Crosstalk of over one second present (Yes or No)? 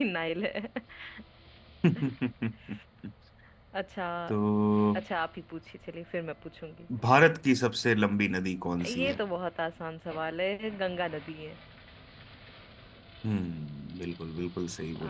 No